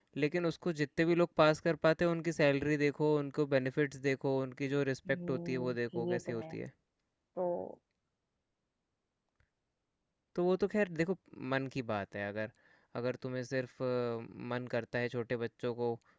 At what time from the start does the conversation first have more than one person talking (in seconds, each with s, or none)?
5.1 s